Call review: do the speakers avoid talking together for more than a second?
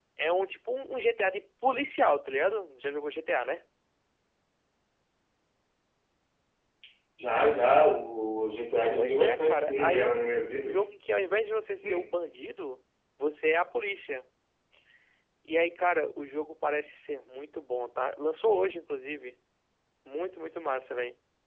No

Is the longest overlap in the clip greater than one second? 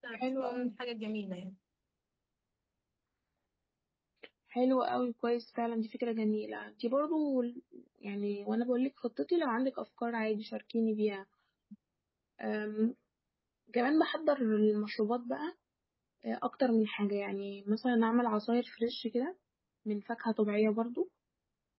No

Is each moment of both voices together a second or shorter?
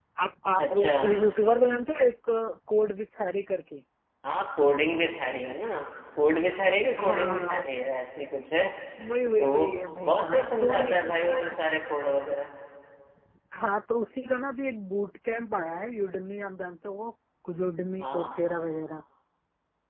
No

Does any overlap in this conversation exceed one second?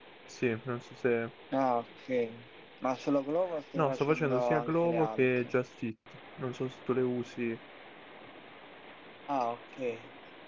Yes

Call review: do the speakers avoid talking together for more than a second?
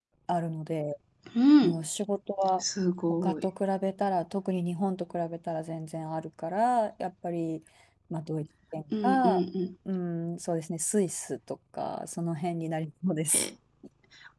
Yes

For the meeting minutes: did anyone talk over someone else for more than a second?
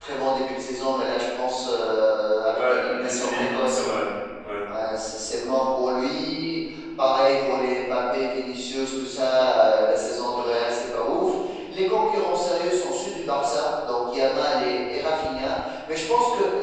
Yes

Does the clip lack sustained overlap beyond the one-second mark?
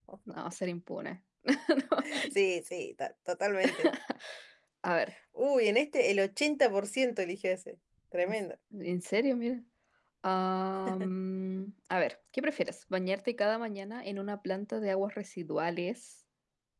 Yes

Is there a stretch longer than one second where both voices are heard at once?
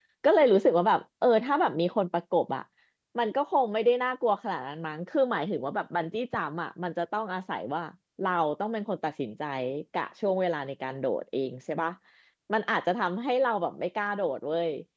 No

